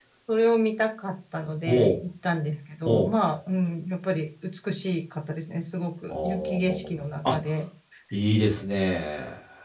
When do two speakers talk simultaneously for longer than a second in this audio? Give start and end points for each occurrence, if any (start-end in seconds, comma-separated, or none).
6.1-7.4